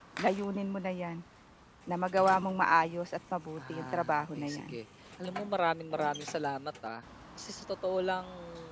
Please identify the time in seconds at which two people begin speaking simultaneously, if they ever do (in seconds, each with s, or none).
3.6 s